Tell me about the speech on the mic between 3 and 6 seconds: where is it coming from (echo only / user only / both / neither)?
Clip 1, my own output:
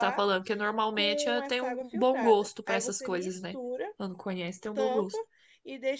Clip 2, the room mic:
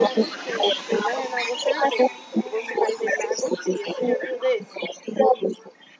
both